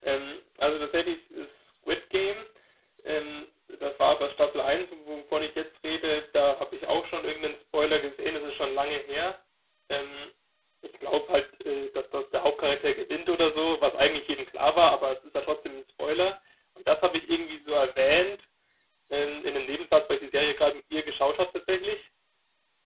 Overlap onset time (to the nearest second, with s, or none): none